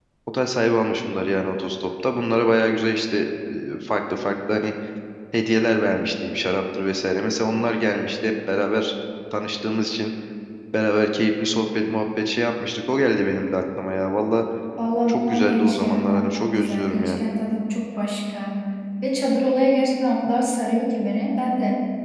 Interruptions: present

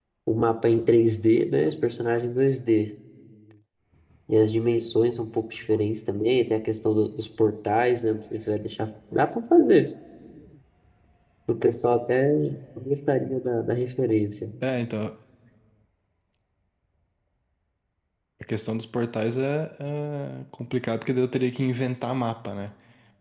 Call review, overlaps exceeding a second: none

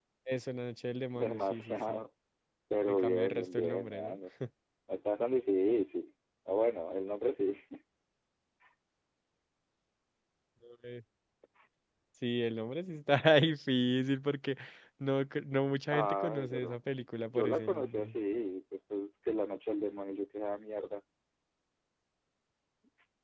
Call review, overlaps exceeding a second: present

